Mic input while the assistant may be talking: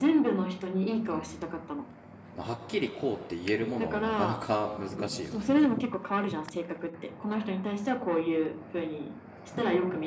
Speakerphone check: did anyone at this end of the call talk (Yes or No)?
Yes